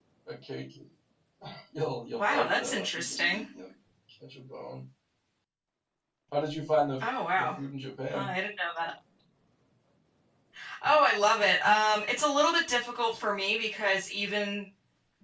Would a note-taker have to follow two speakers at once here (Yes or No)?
Yes